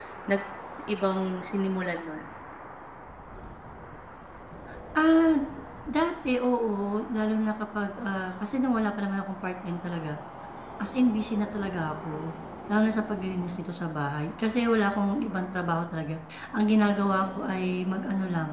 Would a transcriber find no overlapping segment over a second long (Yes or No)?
Yes